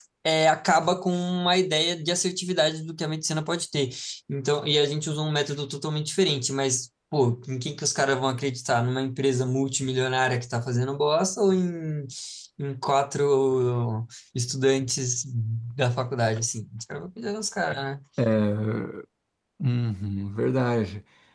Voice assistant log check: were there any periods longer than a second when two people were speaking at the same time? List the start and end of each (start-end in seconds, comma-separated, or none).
none